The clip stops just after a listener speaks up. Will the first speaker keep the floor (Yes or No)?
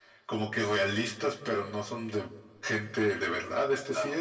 No